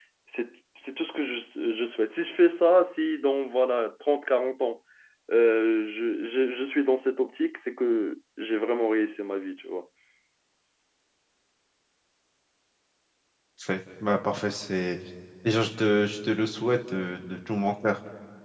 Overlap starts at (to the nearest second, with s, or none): none